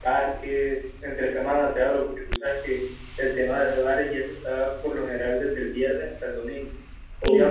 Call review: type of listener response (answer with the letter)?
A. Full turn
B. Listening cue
B